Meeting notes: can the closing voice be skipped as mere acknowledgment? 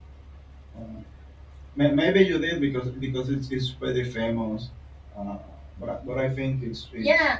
No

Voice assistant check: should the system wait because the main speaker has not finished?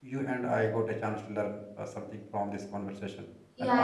No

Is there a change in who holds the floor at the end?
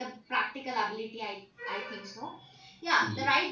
No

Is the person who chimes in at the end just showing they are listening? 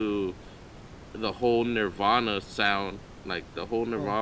Yes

